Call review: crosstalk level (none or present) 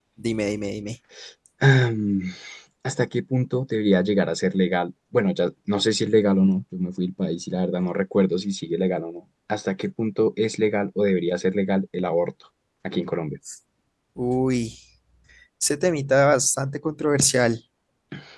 none